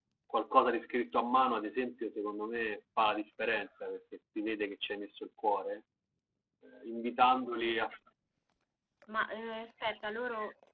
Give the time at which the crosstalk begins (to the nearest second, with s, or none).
none